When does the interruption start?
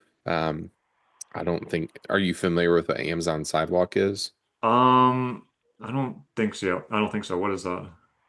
none

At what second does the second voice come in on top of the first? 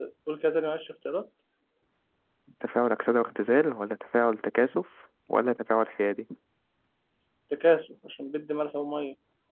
none

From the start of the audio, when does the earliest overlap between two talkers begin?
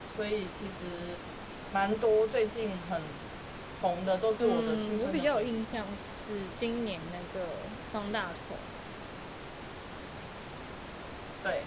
4.4 s

